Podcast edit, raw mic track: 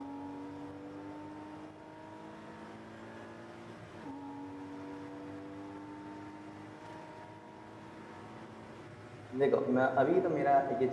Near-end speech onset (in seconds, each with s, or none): 9.4 s